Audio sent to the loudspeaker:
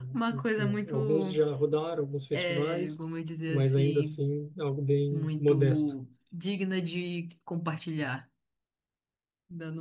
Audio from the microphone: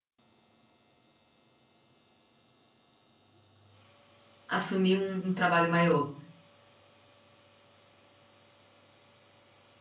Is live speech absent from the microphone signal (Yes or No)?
No